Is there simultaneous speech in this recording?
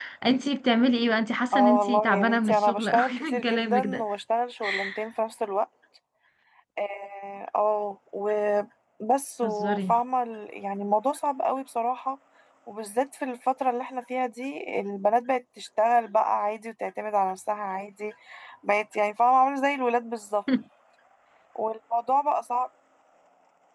Yes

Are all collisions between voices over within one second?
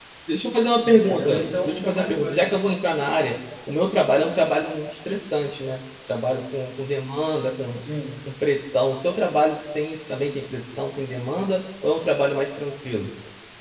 No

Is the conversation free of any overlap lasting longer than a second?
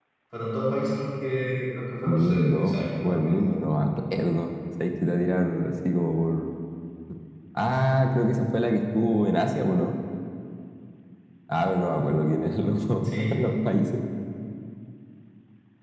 No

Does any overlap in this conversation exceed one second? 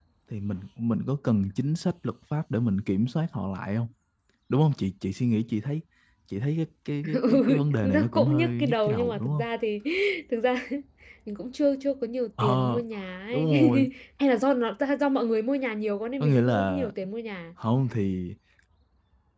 Yes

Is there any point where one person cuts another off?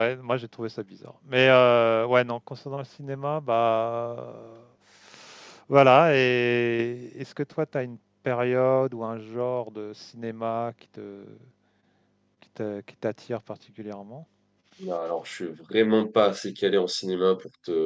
No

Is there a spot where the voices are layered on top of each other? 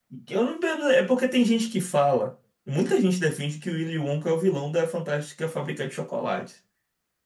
No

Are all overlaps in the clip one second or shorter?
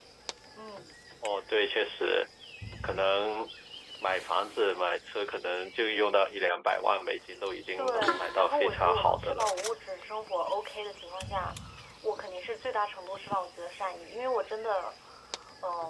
No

